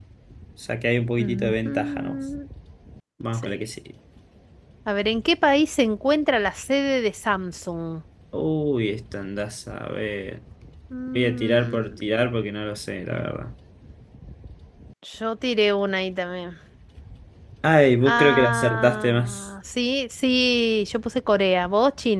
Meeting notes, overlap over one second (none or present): present